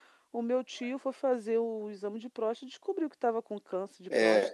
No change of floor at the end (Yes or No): No